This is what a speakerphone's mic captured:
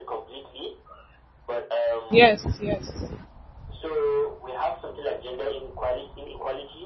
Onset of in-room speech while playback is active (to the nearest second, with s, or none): 2 s